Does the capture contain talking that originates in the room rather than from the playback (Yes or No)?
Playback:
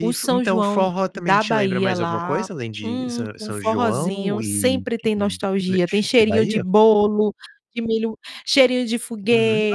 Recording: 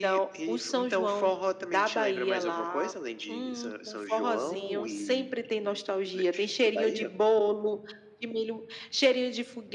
No